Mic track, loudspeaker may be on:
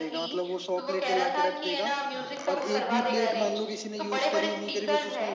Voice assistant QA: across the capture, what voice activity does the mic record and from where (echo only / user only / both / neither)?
both